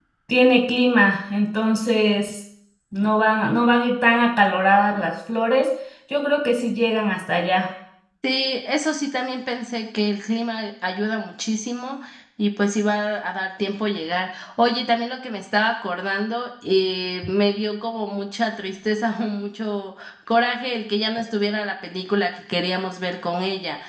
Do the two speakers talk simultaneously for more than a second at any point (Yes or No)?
No